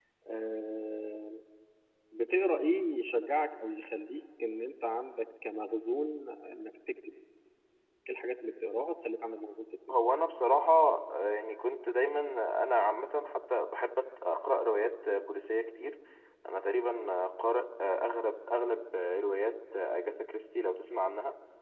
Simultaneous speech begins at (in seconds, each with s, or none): none